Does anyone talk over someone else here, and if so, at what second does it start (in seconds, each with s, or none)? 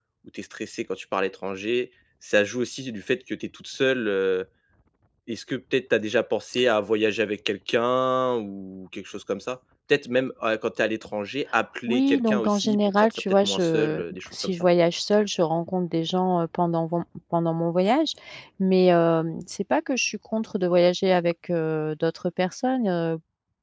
11.9 s